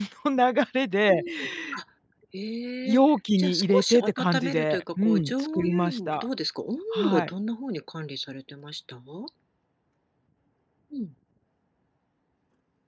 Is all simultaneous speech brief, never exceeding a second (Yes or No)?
No